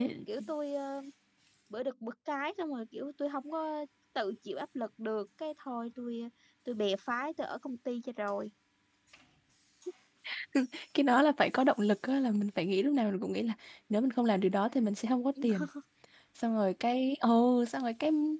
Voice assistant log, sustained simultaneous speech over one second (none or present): none